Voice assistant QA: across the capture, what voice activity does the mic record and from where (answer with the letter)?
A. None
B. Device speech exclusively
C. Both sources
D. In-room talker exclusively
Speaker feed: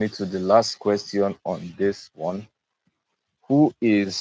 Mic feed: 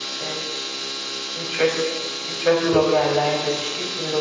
D